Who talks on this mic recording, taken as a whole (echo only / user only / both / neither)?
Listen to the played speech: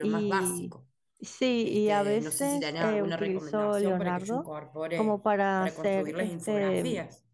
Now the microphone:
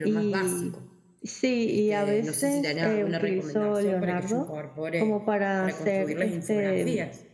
echo only